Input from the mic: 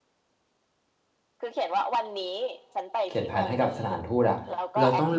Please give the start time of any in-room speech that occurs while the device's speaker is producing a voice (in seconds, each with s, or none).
3.0 s